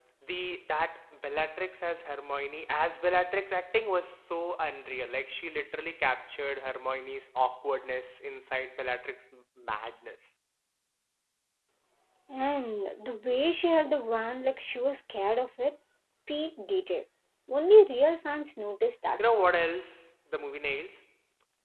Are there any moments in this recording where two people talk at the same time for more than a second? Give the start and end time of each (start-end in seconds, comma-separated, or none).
none